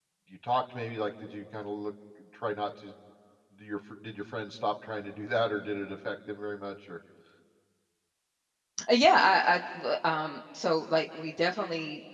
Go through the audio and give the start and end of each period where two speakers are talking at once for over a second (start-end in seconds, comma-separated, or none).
none